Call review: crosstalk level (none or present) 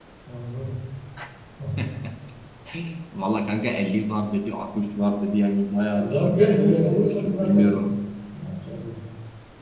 present